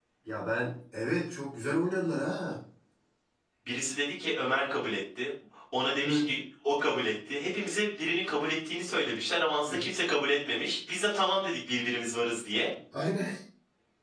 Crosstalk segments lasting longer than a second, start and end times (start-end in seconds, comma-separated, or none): none